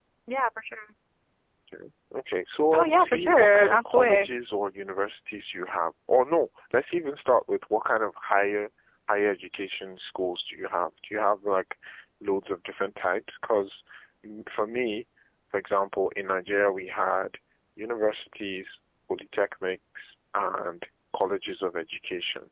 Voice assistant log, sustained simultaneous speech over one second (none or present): present